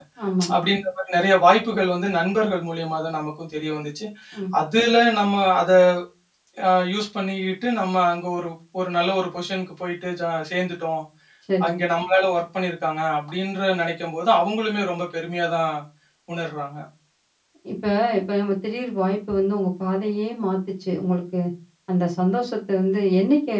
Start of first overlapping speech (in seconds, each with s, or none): none